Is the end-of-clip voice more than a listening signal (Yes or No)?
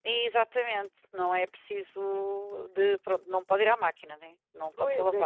Yes